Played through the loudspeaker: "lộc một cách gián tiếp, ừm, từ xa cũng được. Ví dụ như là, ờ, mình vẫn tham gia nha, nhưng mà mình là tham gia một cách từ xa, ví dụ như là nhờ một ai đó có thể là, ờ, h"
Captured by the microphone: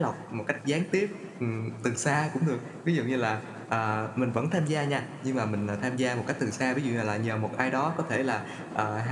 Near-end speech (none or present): none